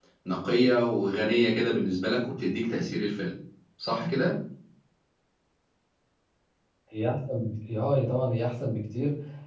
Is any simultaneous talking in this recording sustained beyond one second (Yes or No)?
No